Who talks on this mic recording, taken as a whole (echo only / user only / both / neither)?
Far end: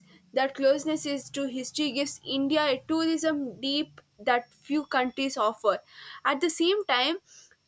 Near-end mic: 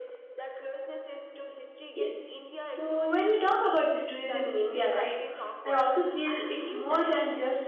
both